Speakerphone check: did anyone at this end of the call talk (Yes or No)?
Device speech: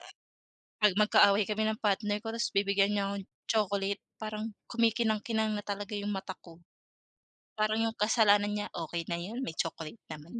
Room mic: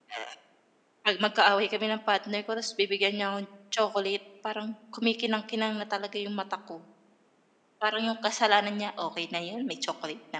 No